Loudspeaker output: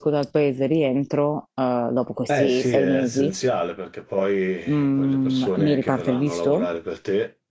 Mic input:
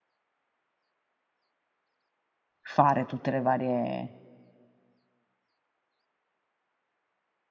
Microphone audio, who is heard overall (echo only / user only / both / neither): user only